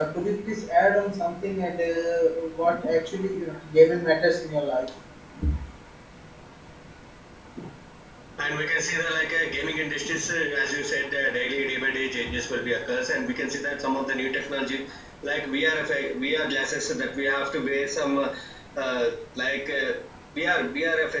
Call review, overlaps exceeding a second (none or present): none